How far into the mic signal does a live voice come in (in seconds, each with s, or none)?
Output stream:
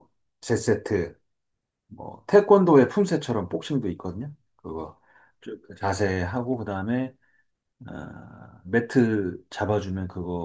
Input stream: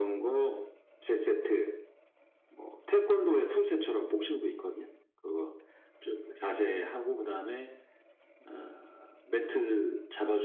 none